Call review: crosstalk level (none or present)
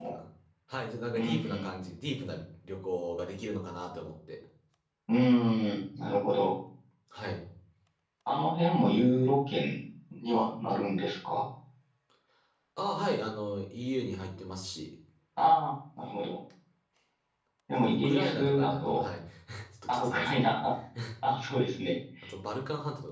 present